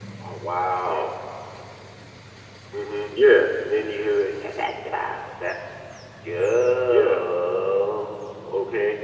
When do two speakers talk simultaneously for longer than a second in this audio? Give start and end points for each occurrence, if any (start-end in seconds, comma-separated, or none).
none